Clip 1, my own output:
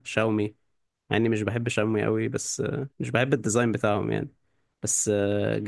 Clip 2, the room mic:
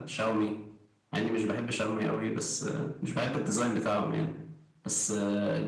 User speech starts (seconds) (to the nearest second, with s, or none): none